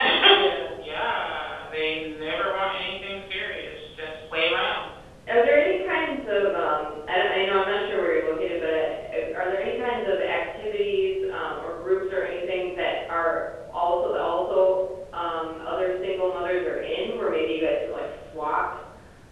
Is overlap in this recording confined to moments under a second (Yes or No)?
Yes